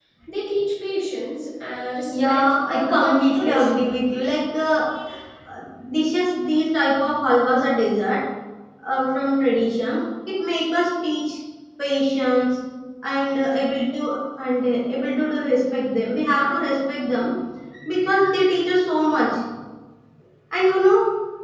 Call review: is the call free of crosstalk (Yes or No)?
No